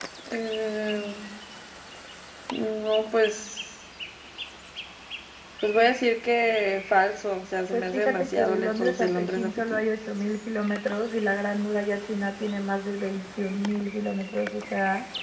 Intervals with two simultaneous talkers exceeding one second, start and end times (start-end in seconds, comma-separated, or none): 7.7-9.9